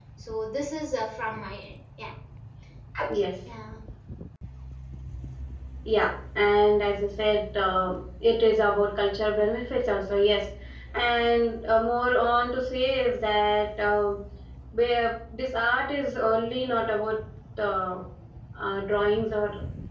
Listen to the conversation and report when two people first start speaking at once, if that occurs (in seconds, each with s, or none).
none